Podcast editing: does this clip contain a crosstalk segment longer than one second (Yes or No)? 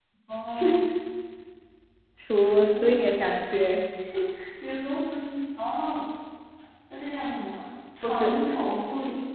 No